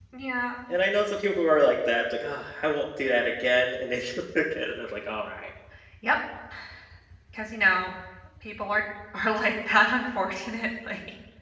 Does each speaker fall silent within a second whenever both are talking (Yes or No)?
Yes